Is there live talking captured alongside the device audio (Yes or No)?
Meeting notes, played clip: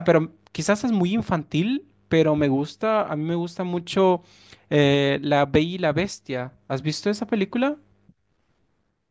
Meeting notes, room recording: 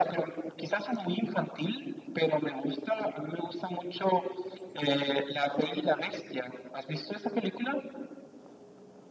No